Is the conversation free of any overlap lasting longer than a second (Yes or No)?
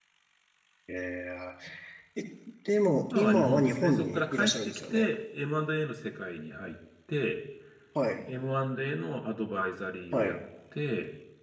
No